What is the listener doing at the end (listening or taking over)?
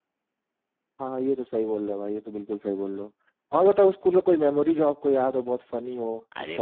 taking over